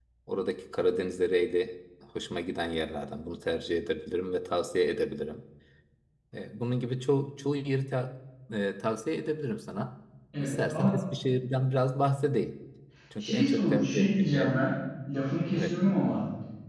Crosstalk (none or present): present